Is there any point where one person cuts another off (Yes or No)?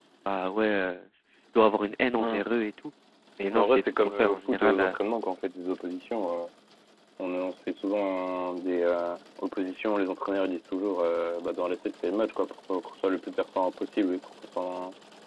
Yes